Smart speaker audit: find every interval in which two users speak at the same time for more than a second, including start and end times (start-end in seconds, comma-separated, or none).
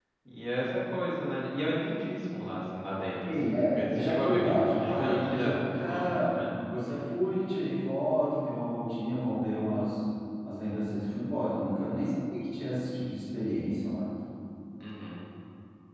3.2-6.4